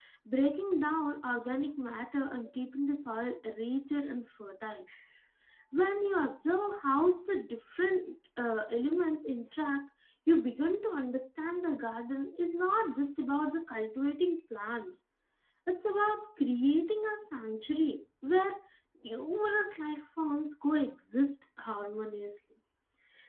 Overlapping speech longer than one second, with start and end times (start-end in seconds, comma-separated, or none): none